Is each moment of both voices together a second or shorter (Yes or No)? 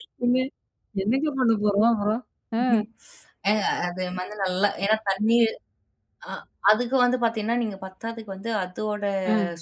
Yes